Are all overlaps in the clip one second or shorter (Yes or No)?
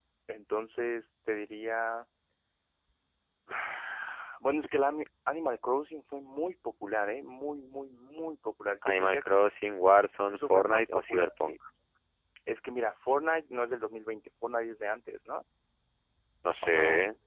No